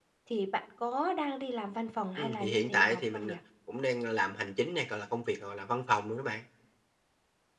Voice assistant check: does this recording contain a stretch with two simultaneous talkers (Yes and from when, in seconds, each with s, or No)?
Yes, from 2.2 s